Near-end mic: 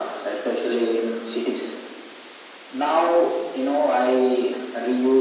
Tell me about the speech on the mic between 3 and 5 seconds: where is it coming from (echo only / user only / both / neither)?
echo only